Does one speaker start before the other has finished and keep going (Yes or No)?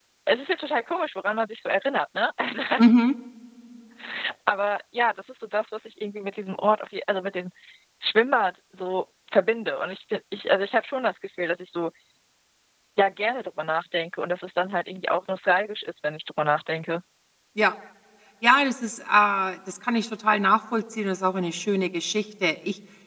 No